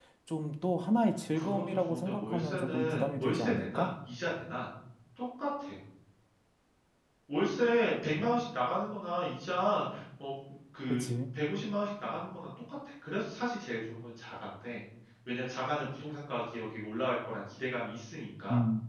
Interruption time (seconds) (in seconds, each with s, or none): 1.3 s